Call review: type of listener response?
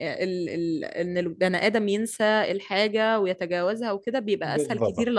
listening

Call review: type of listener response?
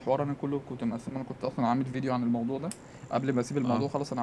listening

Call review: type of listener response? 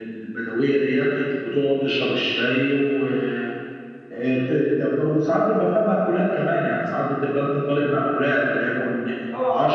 taking over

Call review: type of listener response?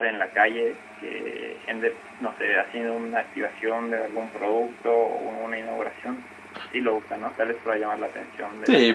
taking over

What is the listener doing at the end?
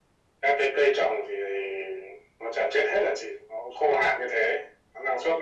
taking over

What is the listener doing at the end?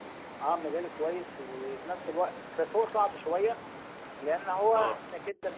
listening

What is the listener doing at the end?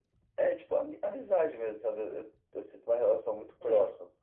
listening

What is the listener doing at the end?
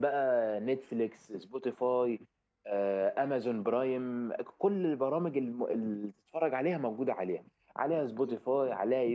listening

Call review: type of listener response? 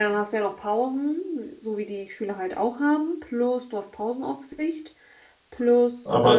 taking over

